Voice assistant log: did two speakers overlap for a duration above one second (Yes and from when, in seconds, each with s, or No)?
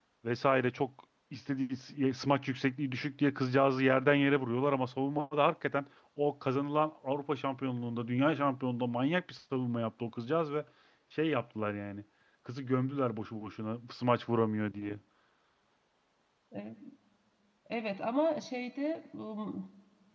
No